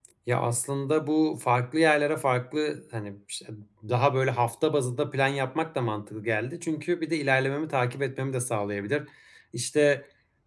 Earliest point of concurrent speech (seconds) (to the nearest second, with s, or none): none